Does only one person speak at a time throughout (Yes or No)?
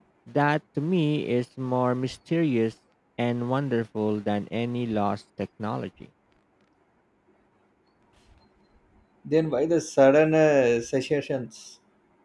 Yes